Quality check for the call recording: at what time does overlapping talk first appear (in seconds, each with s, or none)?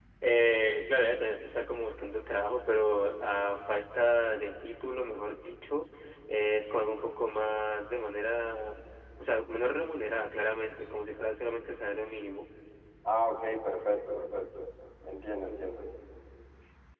none